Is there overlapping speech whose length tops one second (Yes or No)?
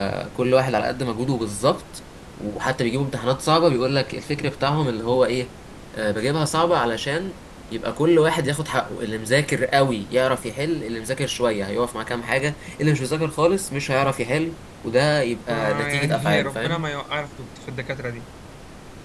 Yes